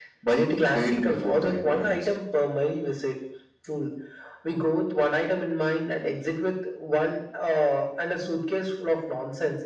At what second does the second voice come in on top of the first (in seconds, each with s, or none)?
0.6 s